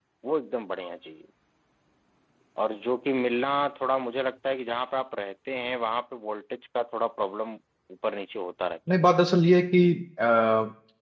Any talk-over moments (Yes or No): No